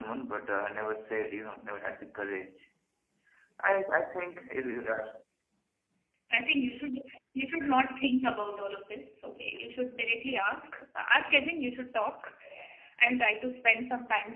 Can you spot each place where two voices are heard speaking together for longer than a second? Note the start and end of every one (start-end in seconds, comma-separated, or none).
none